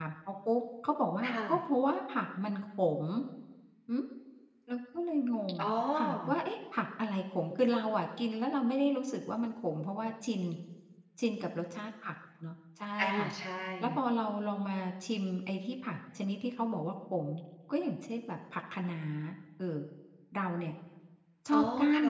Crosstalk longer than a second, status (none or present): none